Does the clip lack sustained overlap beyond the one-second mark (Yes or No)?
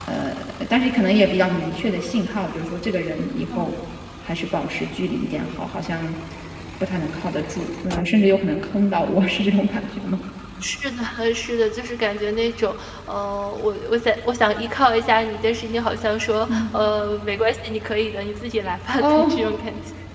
Yes